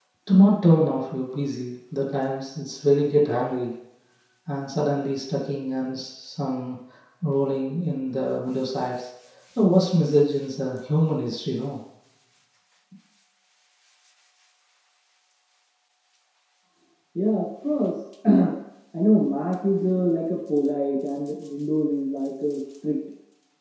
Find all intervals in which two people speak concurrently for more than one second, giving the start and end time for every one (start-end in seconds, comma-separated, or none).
none